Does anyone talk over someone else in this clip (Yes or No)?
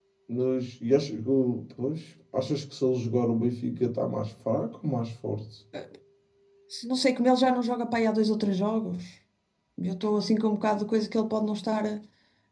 No